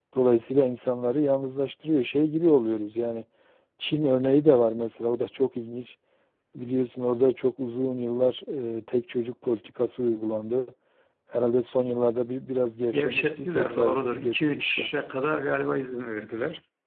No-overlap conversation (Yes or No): No